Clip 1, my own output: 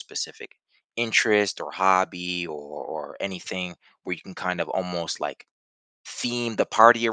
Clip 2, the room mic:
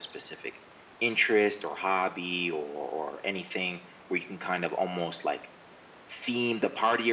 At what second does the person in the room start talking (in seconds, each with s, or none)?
none